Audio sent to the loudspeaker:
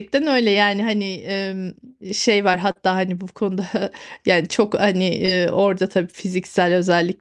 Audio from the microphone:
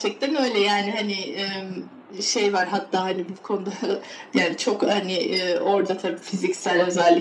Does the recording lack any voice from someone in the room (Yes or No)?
Yes